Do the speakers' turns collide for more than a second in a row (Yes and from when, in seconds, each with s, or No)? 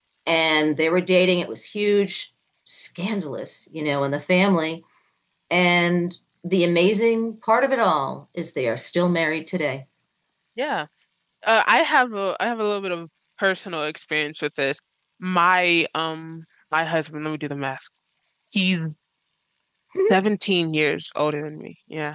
No